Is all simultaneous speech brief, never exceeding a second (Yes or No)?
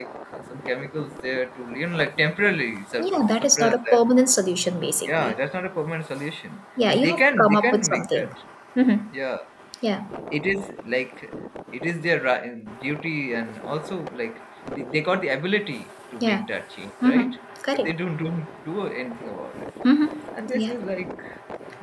No